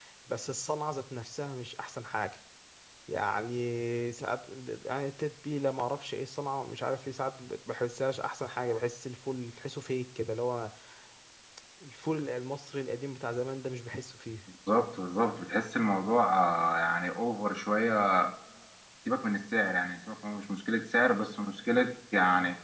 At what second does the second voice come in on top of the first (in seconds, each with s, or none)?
none